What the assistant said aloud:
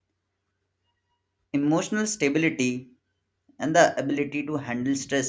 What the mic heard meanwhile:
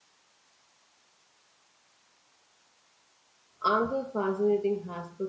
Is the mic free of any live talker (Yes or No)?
No